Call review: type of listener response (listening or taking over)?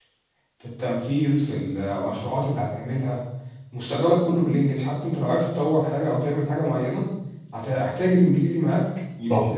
taking over